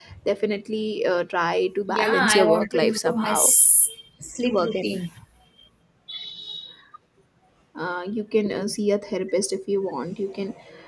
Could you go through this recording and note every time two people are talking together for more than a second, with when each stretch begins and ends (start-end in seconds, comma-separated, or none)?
1.9-3.4